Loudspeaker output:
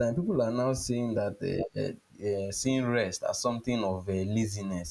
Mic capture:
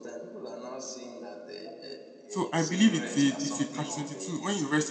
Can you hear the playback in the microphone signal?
Yes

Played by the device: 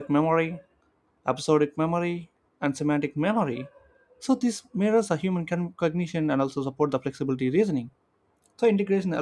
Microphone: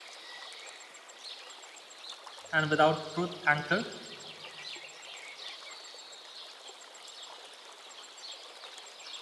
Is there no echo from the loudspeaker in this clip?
Yes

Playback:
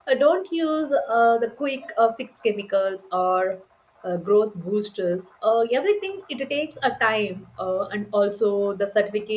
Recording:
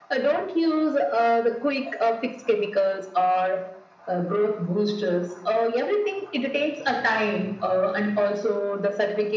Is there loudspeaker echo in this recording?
Yes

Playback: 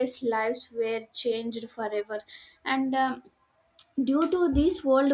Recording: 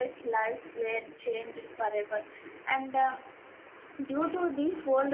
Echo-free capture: No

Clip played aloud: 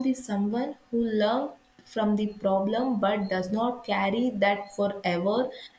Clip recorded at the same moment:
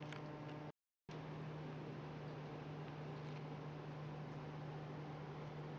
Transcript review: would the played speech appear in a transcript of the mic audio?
No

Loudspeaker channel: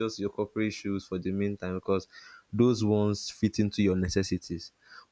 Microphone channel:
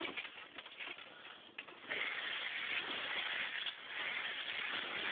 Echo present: No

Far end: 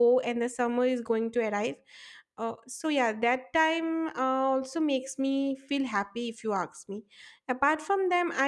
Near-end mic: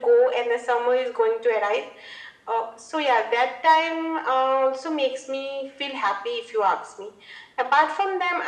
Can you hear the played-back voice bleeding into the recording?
Yes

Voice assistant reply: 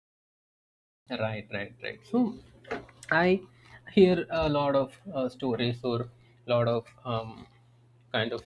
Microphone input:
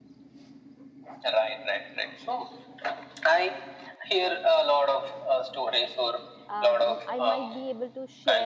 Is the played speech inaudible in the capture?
No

